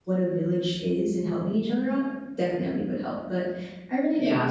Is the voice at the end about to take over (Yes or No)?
Yes